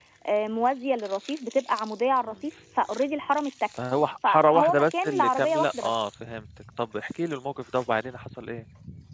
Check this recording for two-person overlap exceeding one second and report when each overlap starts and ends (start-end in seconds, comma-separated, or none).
4.3-5.9